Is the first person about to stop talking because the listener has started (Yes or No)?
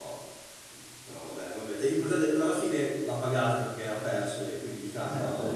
Yes